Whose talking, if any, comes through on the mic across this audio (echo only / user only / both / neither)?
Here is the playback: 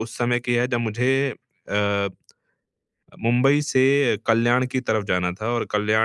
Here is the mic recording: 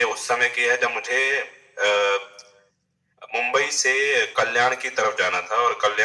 echo only